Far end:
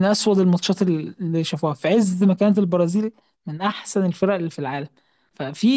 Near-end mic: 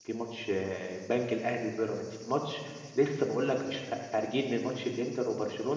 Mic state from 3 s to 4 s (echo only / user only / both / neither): user only